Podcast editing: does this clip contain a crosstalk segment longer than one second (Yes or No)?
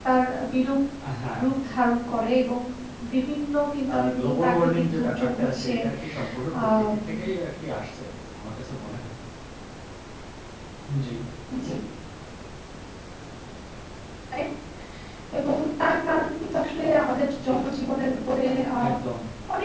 Yes